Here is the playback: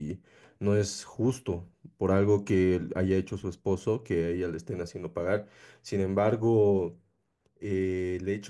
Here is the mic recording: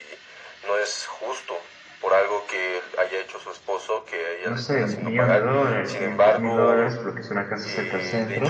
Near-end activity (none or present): present